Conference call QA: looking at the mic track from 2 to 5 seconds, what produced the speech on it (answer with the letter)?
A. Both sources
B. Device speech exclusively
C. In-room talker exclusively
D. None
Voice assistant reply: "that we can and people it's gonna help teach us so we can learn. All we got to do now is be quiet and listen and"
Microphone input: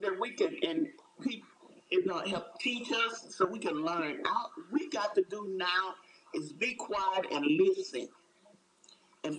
B